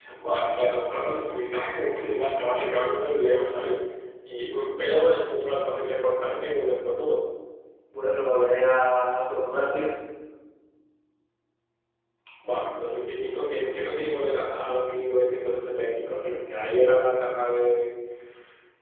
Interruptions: none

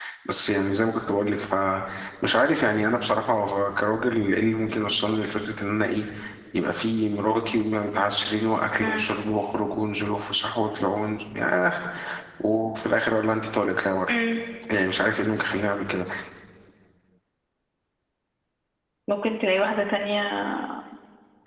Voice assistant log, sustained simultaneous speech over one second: none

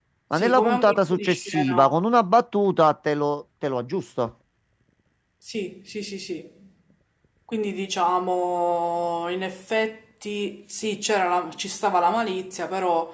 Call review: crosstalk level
present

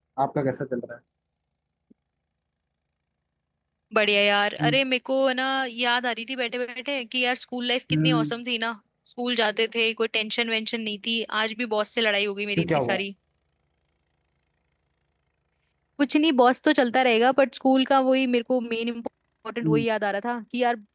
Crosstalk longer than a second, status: none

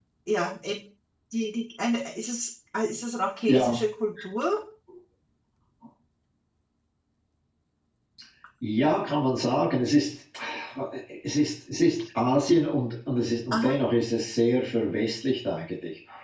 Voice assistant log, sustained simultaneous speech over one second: none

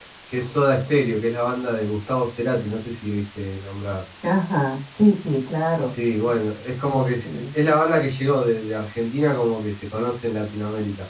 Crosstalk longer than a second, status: none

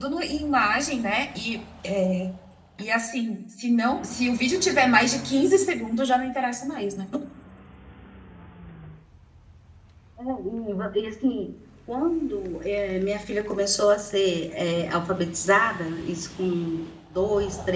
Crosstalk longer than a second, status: none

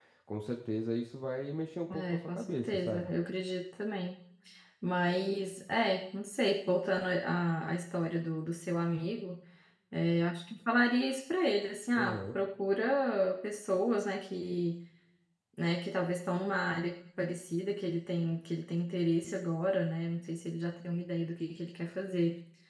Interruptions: present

